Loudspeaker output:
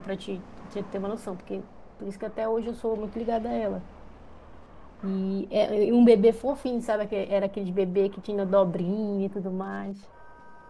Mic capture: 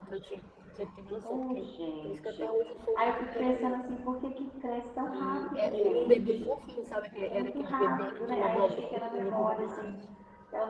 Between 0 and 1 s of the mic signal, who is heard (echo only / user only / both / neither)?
echo only